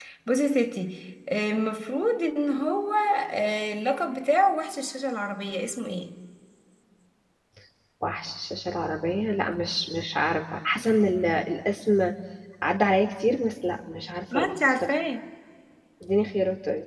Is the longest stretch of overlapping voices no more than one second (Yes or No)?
Yes